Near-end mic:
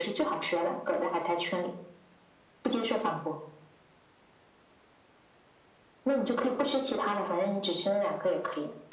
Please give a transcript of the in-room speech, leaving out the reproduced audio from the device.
none

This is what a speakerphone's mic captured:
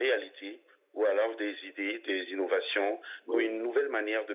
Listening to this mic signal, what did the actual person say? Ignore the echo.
oui.

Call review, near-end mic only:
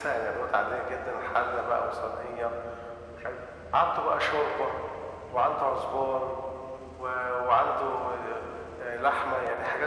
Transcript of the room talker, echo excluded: none

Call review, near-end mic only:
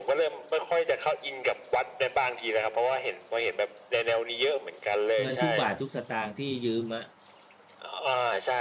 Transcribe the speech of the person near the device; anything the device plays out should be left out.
เงินทุกบาททุกสตางค์ที่ยืมมา

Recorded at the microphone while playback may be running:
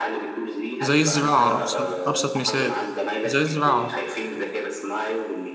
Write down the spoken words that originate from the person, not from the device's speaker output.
زي الزراعة أبسط أبسط مثال زي الزراعة

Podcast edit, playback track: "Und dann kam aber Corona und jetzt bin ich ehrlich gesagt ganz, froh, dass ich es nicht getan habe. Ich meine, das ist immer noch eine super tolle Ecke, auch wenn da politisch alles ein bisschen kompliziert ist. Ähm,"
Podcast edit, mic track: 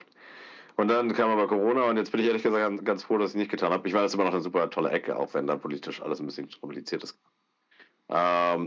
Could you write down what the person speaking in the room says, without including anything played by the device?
none

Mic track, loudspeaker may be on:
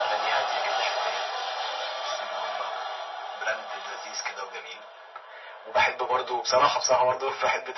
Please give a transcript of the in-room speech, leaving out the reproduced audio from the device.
none

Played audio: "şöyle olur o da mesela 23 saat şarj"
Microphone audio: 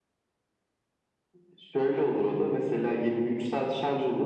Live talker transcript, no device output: none

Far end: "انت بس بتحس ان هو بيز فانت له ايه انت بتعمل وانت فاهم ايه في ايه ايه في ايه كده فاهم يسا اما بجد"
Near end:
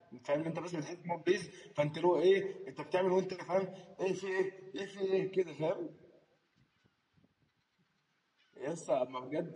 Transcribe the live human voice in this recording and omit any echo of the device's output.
none

